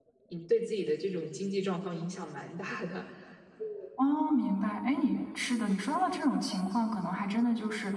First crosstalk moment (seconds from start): none

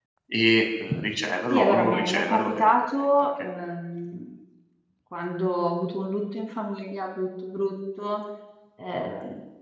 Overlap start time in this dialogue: 2 s

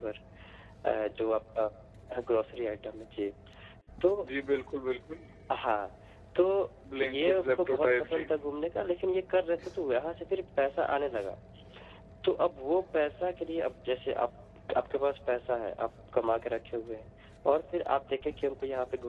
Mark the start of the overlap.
7 s

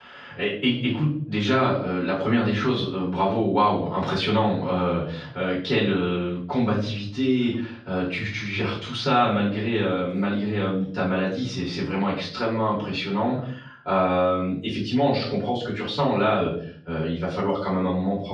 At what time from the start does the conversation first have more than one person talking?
none

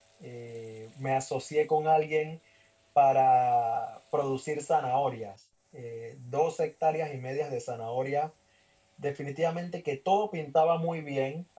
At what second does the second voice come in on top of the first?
none

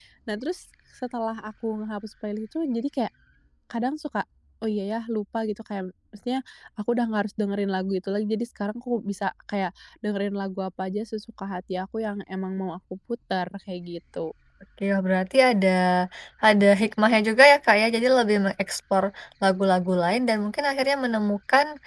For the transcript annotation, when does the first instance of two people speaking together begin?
none

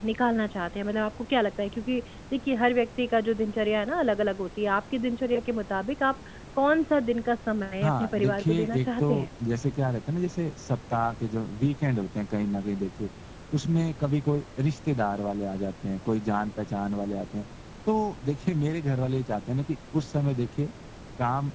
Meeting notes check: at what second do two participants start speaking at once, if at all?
8 s

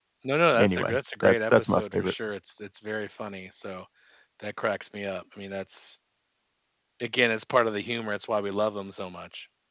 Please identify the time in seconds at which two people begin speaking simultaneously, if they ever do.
1 s

